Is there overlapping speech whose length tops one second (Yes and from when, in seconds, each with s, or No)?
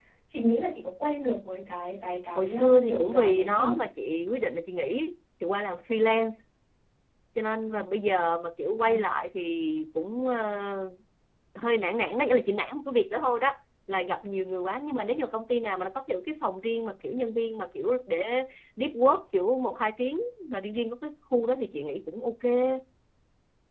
Yes, from 2.4 s